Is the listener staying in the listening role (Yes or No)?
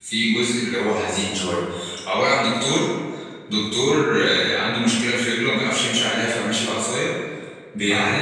Yes